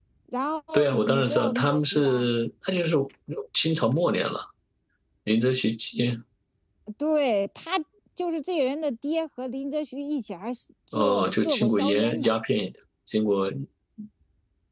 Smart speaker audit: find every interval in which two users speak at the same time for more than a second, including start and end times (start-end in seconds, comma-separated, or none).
0.7-2.3, 10.9-12.3